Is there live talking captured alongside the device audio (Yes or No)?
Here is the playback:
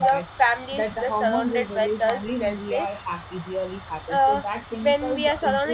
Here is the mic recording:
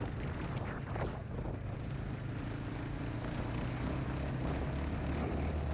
No